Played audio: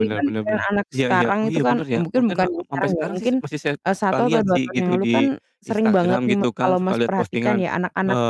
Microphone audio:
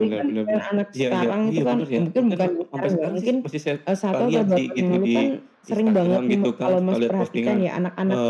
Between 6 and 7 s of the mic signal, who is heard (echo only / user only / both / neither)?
echo only